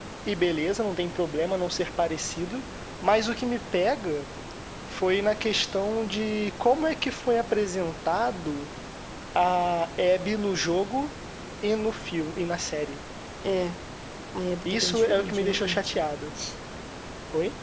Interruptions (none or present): present